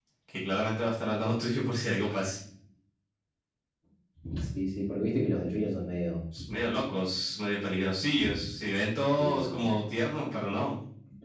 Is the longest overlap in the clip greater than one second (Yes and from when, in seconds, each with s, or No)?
No